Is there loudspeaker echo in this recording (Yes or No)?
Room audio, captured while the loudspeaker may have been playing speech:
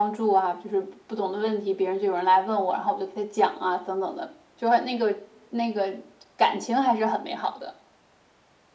Yes